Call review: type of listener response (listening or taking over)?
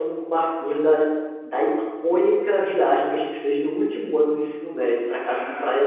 taking over